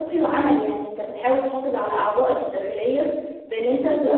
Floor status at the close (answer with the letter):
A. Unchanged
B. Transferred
A